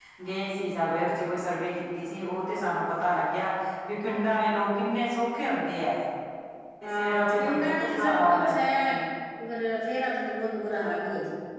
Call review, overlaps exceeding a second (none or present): present